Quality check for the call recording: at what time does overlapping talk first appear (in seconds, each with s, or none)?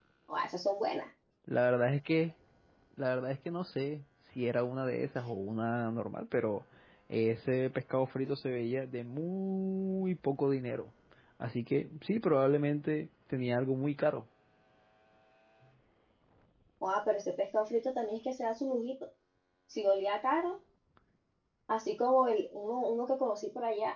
none